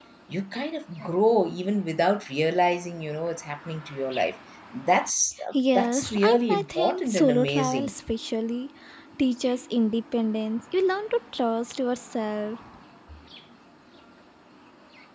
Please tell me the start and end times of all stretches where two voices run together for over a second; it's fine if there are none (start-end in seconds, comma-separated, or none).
5.8-7.9